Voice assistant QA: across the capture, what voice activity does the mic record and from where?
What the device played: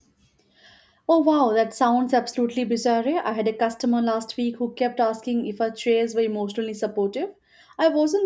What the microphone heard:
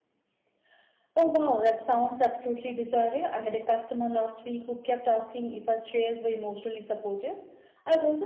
echo only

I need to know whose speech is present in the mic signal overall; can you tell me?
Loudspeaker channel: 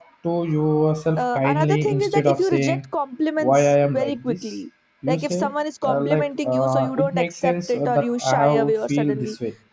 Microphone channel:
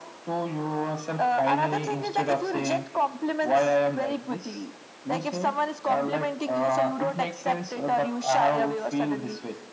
echo only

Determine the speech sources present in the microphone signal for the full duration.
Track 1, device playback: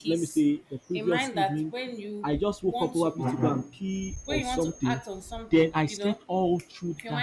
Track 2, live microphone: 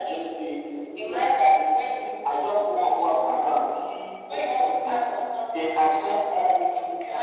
echo only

